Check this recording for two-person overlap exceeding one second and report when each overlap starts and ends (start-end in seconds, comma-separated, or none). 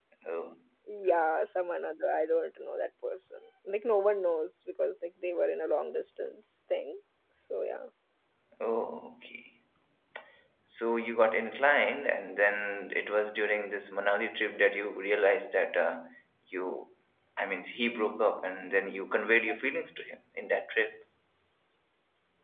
none